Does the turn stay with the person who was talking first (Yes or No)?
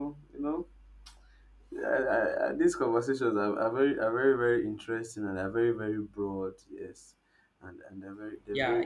No